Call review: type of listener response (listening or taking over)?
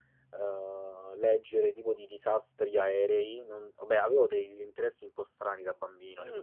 taking over